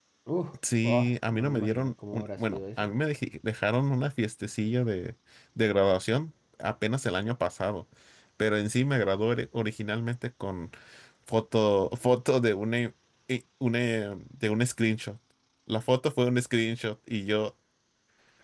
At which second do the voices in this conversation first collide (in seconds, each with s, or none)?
0.8 s